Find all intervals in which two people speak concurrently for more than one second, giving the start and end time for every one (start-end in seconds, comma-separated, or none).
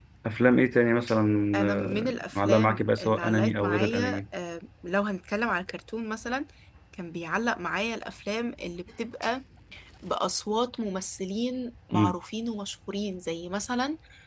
1.6-4.2